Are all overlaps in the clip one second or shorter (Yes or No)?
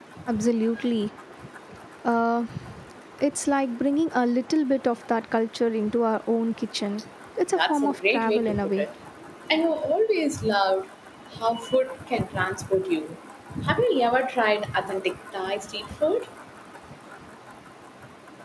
No